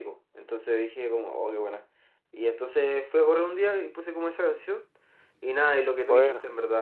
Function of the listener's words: listening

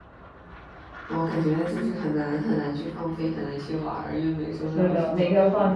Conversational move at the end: taking over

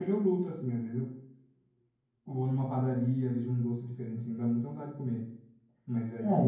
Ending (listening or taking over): taking over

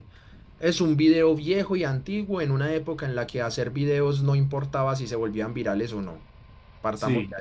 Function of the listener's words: listening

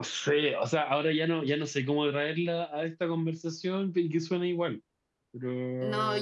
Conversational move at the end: taking over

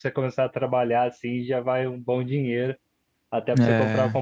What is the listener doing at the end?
listening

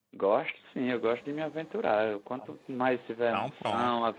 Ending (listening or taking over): listening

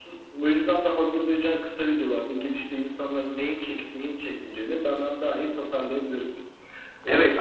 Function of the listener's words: taking over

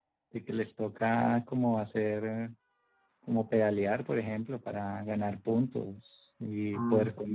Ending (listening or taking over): listening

